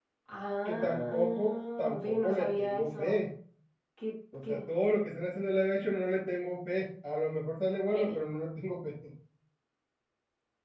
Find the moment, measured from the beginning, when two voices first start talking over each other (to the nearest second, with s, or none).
1 s